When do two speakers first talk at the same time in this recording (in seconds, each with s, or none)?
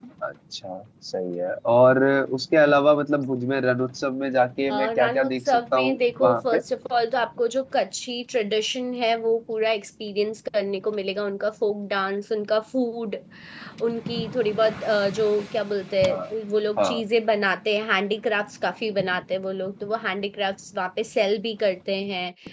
4.7 s